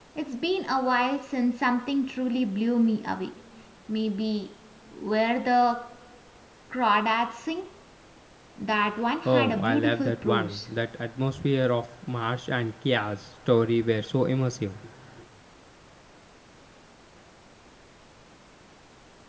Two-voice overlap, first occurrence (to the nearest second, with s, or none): 9 s